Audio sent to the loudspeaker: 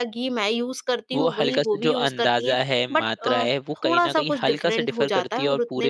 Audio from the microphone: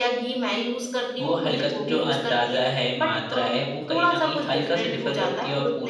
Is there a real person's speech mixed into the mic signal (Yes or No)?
No